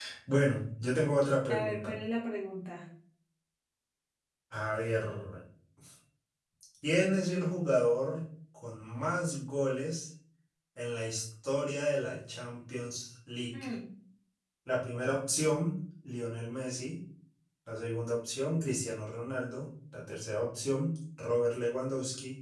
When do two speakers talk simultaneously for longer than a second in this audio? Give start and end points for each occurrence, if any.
none

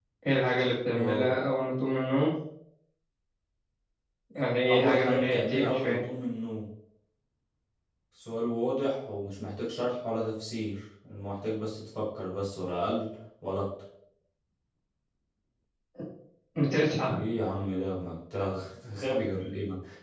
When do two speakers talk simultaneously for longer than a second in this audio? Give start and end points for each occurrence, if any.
4.7-6.0

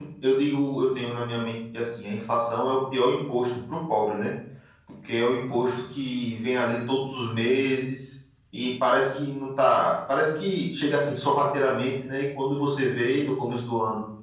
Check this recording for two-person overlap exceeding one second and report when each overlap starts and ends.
none

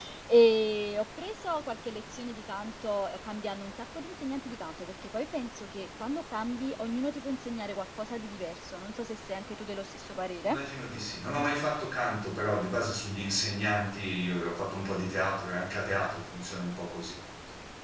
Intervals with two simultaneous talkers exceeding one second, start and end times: none

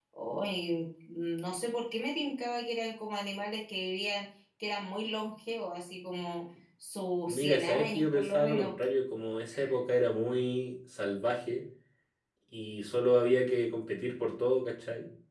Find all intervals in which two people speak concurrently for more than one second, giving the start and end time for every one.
7.3-8.7

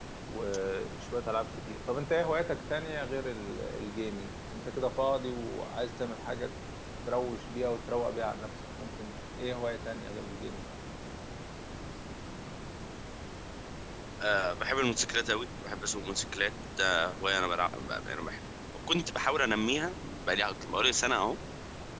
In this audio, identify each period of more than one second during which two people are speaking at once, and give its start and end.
none

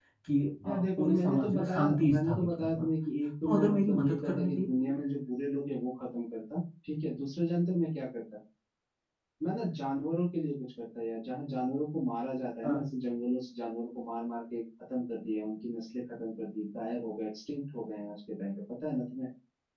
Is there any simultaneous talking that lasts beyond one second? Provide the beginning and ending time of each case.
0.7-2.9, 3.4-4.9

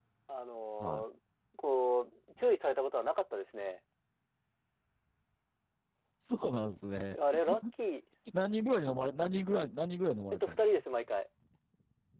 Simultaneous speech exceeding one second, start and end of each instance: none

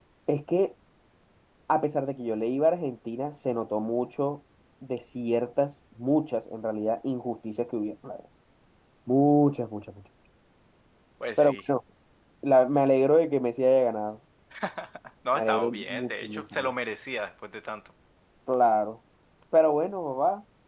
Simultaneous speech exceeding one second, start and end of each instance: 15.3-16.7

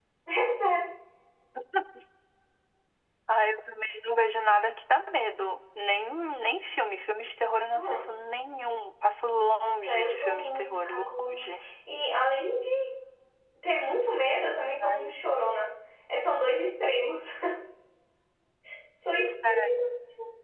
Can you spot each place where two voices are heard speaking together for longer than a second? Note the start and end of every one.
9.8-11.4

